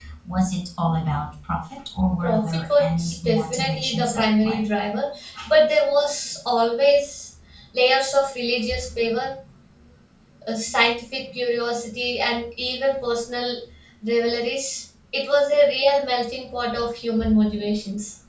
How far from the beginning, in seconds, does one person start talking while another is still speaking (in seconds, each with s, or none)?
2.2 s